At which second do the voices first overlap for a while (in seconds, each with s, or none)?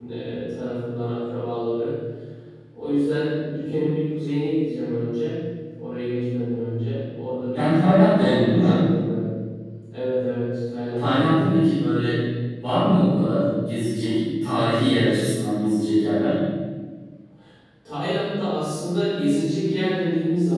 7.5 s